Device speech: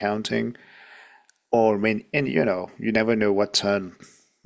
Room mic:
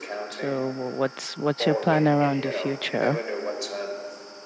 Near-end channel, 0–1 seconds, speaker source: both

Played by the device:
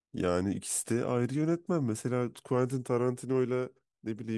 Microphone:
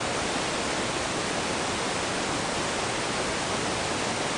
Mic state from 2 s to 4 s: neither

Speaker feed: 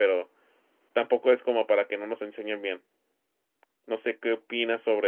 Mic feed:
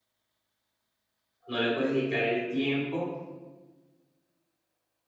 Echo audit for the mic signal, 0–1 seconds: neither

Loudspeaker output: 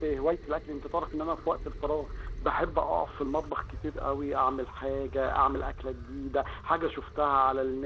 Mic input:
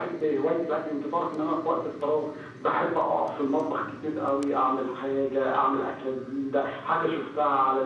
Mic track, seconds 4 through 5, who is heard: echo only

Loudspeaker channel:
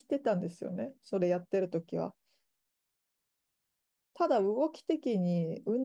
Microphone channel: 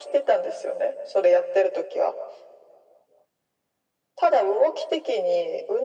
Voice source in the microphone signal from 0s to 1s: echo only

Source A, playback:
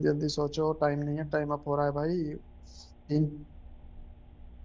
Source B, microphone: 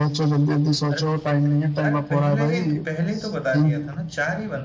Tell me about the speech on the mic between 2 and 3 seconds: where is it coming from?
both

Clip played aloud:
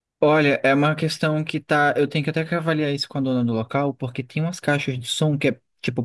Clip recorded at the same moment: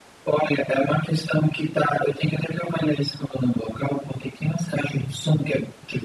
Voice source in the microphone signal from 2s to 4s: echo only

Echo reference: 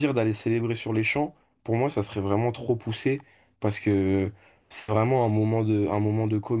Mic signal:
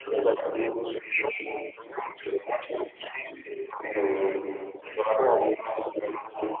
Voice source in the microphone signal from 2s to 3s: echo only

